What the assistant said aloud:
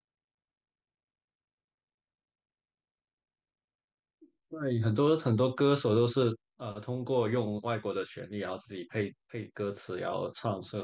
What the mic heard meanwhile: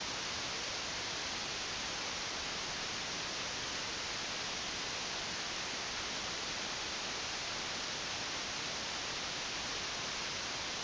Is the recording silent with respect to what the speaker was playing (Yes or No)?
Yes